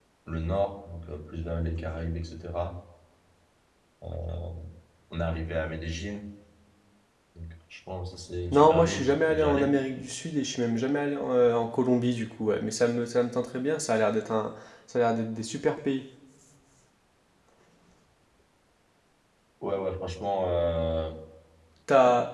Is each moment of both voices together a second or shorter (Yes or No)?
No